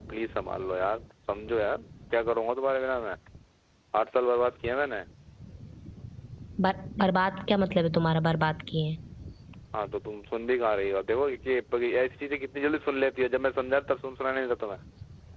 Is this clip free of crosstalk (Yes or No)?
Yes